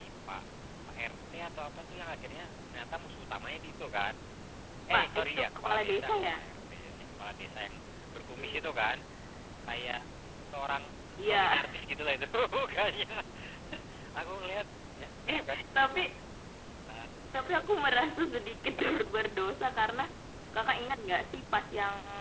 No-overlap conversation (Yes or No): No